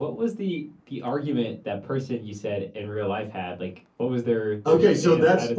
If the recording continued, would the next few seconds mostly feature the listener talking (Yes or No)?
Yes